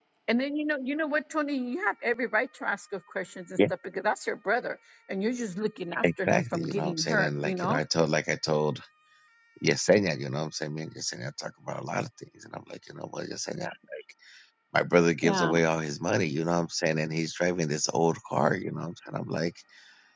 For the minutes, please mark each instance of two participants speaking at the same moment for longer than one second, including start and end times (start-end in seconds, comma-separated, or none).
6.0-7.8